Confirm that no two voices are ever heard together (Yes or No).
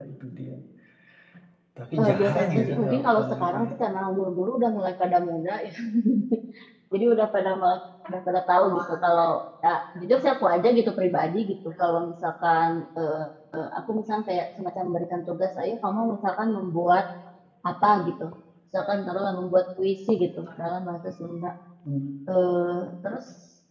No